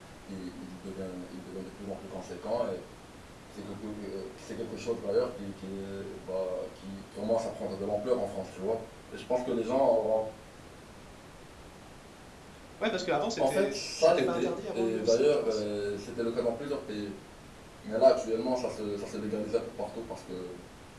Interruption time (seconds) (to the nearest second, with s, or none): 13 s